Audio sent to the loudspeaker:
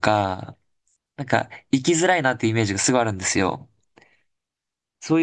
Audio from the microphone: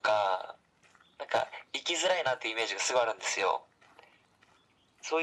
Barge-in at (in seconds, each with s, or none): none